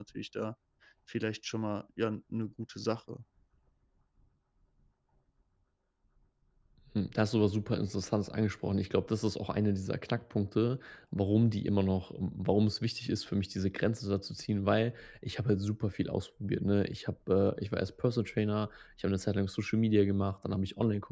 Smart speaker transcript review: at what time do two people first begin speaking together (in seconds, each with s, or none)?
none